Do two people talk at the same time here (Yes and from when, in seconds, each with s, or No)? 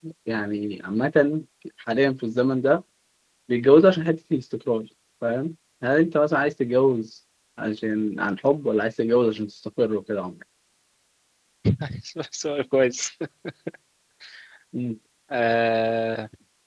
No